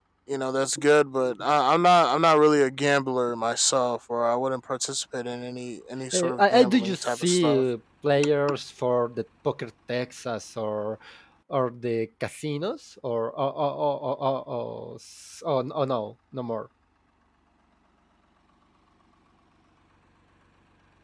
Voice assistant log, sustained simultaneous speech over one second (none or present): present